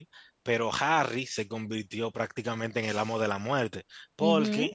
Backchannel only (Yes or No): Yes